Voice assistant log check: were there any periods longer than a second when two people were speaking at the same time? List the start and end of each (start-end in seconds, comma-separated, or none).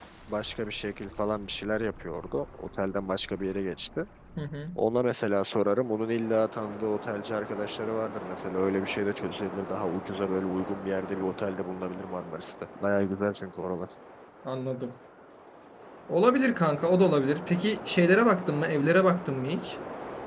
none